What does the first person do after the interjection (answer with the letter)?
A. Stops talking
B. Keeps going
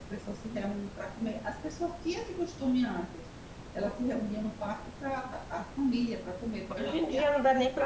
A